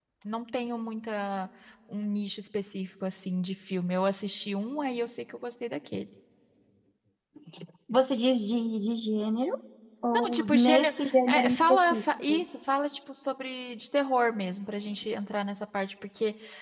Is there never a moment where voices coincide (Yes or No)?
No